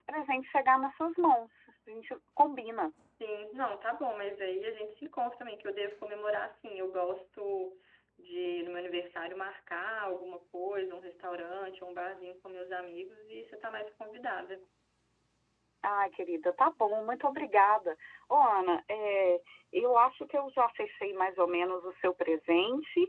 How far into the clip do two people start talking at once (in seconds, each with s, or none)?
none